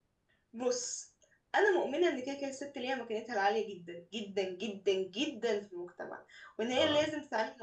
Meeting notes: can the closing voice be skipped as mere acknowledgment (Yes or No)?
Yes